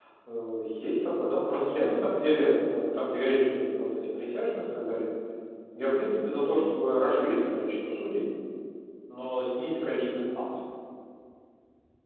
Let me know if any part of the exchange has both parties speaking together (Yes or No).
No